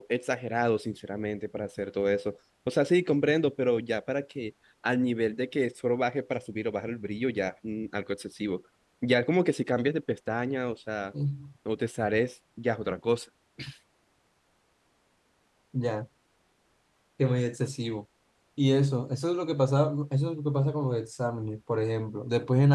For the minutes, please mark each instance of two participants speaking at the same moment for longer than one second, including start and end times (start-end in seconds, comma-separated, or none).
none